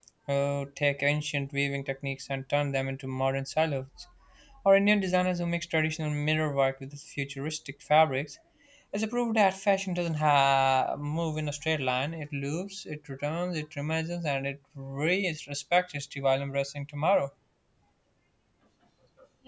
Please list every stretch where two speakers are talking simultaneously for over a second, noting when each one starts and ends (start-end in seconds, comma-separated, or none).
none